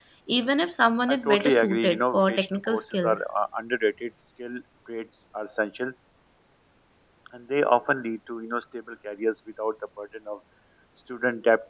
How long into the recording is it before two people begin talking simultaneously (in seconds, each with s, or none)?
1.1 s